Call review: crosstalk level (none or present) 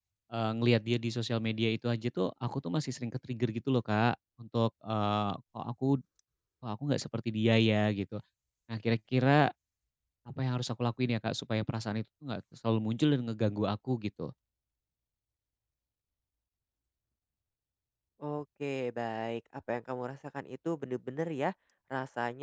none